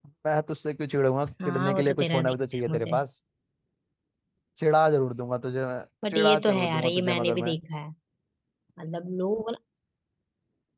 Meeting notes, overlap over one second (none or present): present